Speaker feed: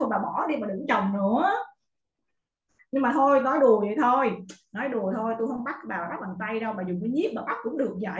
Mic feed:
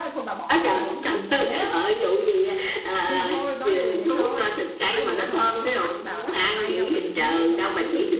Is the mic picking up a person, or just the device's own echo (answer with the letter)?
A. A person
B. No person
A